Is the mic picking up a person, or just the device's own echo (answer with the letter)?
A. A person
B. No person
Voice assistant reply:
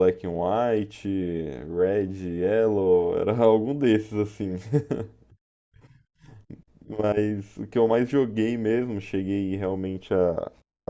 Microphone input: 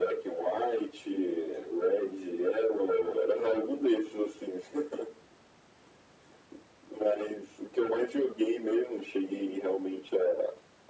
B